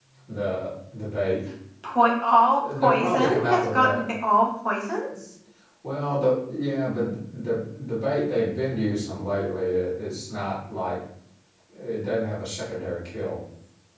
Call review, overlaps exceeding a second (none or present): present